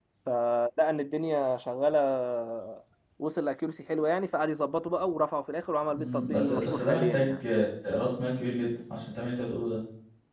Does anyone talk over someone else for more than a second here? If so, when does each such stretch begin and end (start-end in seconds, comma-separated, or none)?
5.9-7.3